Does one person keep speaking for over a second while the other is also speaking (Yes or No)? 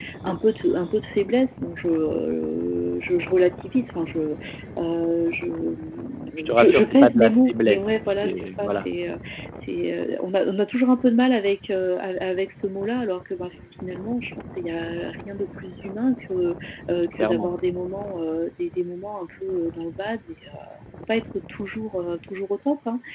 Yes